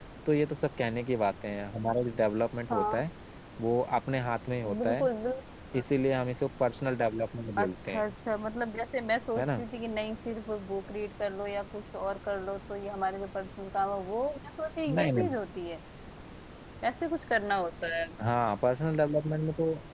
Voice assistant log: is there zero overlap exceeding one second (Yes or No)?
Yes